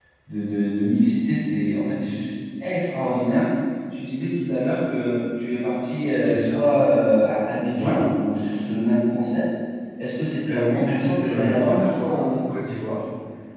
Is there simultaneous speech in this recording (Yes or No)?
Yes